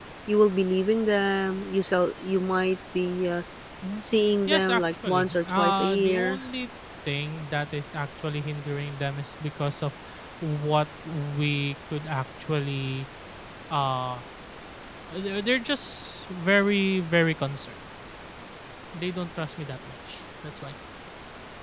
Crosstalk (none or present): present